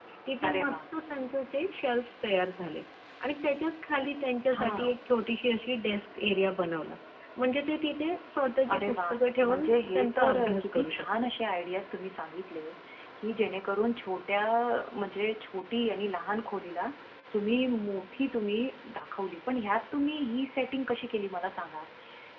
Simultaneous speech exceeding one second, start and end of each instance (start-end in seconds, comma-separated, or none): 9.4-11.3